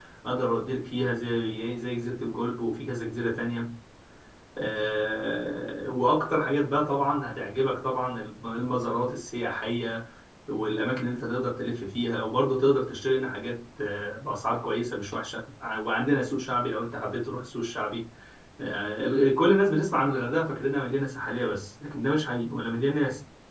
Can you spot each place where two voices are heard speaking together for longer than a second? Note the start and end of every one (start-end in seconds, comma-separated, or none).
none